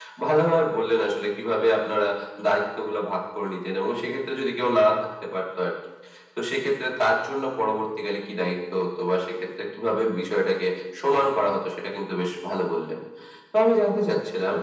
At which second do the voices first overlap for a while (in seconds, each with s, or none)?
none